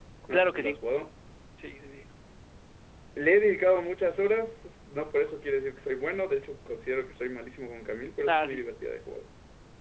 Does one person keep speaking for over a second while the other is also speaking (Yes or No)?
No